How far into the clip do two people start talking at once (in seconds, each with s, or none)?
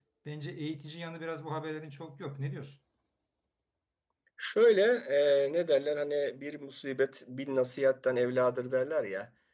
none